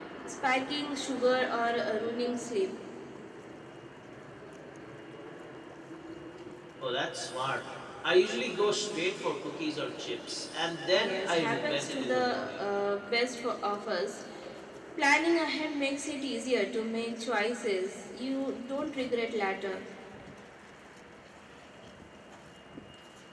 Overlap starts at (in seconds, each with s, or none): 10.9 s